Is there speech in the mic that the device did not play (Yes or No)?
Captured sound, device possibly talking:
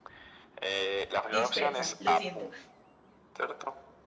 Yes